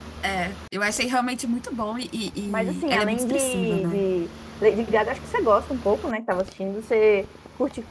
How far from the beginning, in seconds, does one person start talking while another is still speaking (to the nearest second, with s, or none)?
2 s